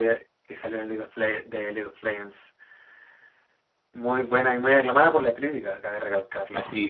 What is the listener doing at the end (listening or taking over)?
taking over